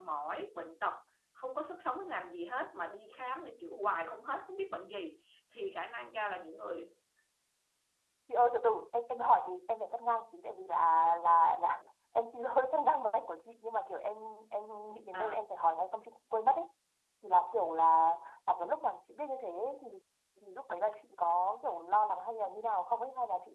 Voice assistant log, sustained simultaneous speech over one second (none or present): none